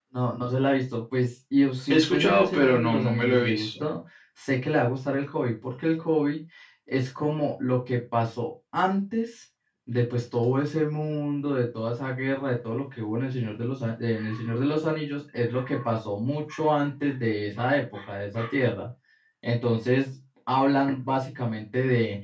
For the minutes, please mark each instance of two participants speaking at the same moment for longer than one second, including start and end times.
1.9-3.7

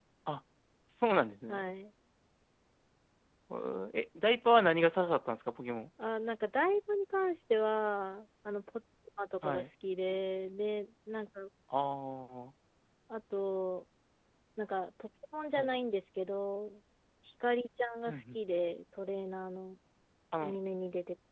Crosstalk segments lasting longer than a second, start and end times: none

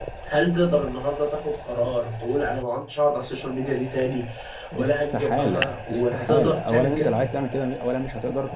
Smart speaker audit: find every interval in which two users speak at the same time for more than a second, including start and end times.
4.8-7.2

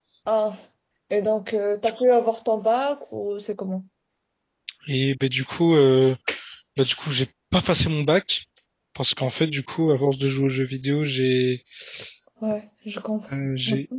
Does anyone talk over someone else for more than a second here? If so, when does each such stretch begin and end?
none

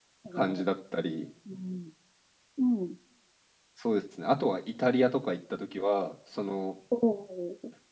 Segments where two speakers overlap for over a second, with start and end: none

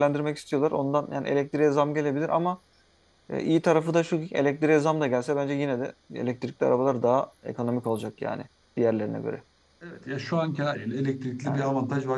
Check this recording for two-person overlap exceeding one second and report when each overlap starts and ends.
none

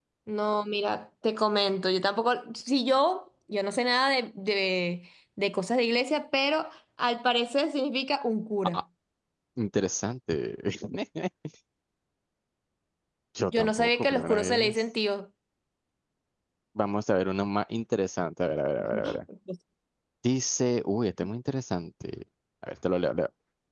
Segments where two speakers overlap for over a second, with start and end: 13.5-14.8

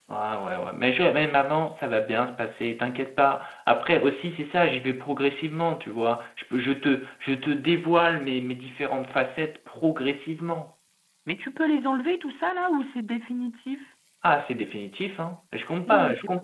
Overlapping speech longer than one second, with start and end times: none

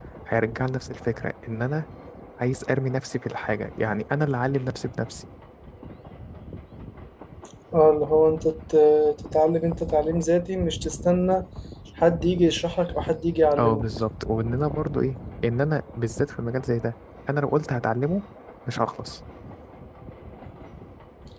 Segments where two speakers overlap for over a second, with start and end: none

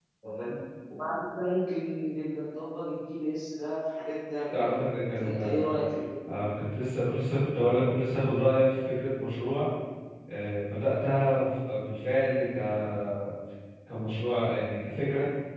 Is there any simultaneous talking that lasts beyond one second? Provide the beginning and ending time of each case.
none

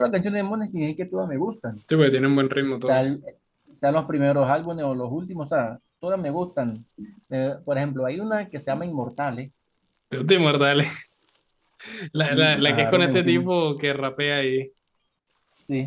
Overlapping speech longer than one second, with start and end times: 12.3-13.5

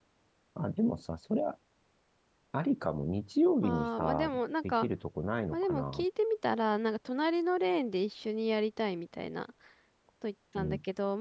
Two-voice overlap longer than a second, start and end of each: 3.6-4.9

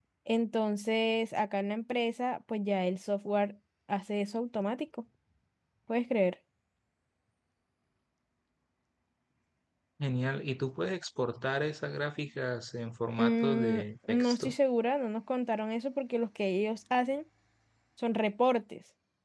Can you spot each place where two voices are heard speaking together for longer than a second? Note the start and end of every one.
13.2-14.6

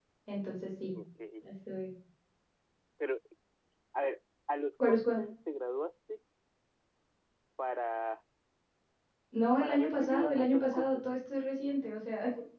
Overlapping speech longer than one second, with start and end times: 9.6-11.0

